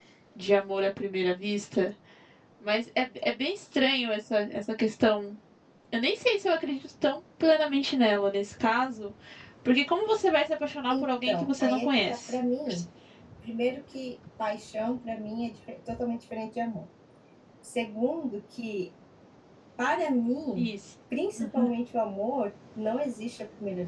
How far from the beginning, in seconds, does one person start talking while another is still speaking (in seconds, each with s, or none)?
10.9 s